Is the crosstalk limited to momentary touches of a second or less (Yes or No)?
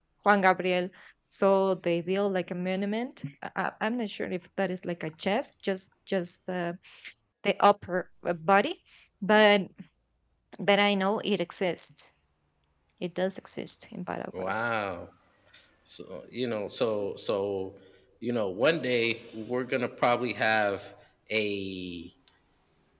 Yes